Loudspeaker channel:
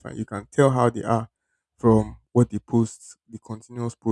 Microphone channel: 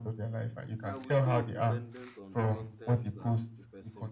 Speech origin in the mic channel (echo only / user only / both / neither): both